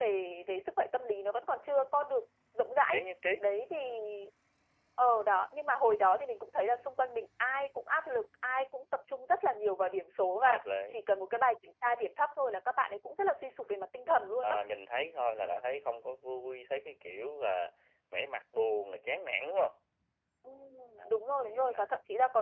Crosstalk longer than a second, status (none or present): none